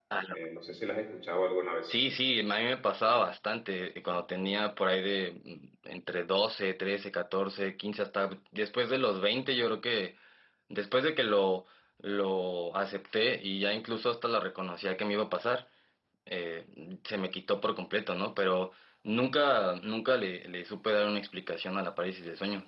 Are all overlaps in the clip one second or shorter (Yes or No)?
Yes